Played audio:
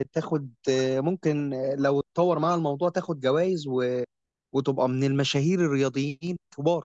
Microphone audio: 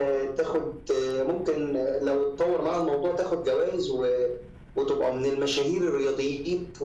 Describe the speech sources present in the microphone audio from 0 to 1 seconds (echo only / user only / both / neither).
echo only